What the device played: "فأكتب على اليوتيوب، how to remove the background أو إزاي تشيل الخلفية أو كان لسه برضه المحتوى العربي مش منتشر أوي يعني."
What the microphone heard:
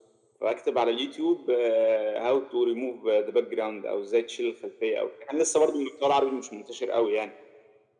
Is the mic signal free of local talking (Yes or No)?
Yes